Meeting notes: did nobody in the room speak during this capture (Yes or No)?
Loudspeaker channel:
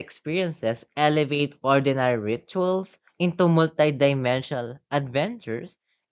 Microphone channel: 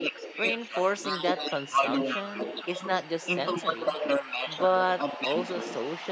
No